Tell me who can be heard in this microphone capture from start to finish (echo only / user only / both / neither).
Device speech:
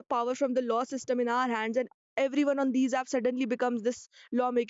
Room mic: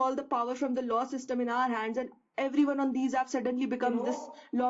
both